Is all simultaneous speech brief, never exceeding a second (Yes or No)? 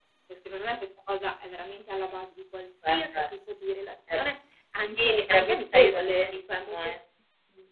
No